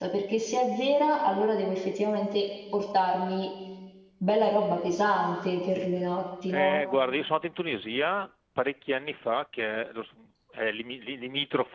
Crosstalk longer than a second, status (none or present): none